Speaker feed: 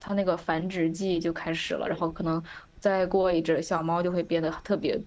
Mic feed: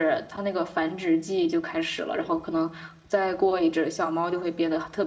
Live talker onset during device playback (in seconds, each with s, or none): none